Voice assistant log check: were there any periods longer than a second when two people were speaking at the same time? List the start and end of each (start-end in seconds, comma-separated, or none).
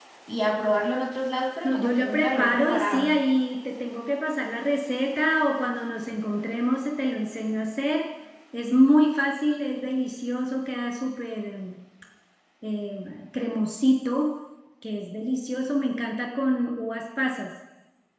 1.6-3.1